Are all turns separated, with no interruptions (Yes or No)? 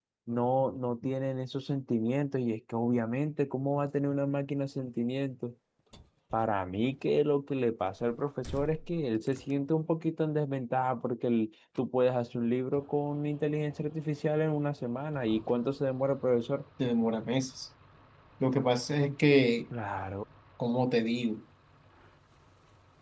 Yes